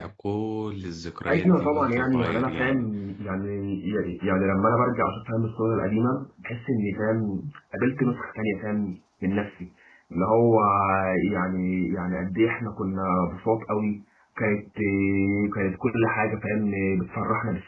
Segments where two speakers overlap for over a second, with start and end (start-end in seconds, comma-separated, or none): 1.3-2.9